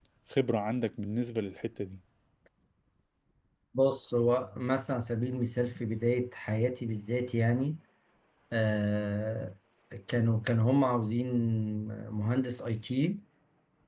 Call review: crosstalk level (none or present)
none